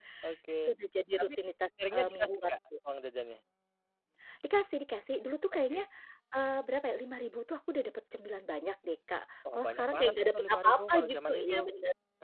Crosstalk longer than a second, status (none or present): present